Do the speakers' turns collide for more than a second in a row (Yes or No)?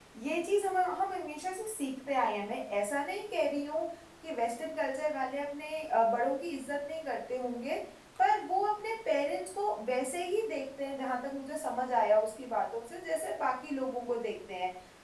No